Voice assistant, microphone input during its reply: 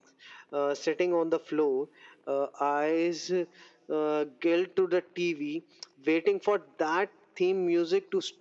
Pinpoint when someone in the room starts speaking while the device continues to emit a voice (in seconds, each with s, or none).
none